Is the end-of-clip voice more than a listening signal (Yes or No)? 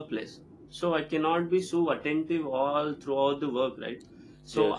No